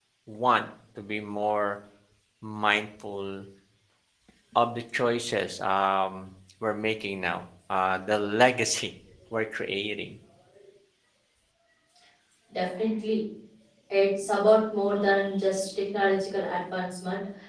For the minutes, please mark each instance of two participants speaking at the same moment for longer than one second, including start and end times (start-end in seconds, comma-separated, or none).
none